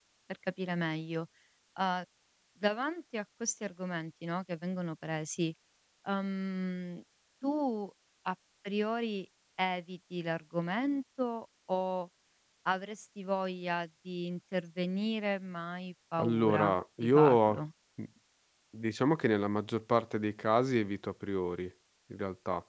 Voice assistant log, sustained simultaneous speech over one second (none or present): present